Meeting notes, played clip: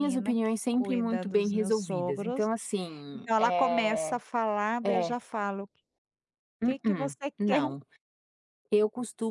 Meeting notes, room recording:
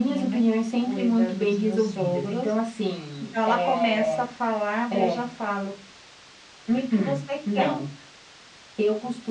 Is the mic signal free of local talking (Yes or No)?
Yes